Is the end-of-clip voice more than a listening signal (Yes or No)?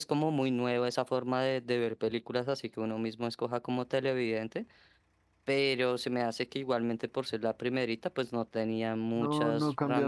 Yes